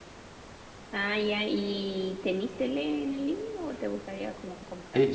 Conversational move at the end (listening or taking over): taking over